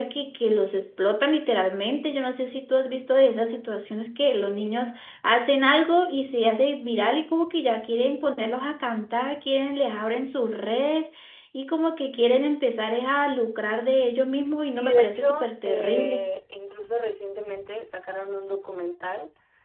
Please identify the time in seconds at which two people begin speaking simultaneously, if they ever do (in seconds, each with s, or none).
14.6 s